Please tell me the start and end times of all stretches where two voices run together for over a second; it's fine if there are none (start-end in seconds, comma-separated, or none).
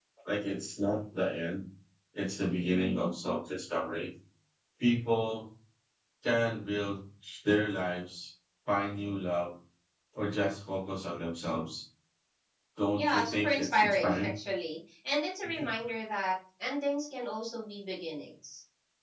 13.0-14.3